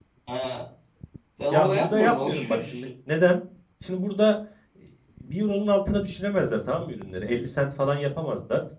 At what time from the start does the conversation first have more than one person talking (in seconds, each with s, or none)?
1.5 s